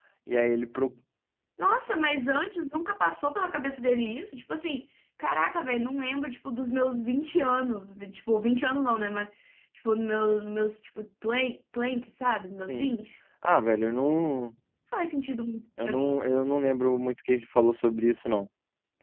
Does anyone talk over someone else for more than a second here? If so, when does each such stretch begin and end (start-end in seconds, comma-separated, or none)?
none